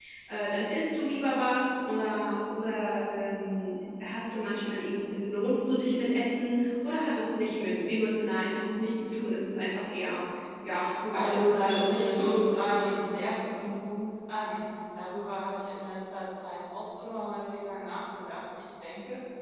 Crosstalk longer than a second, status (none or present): present